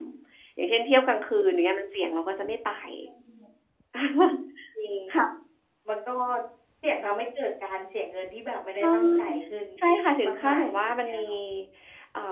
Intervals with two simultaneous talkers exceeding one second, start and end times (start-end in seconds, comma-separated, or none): 9.8-11.2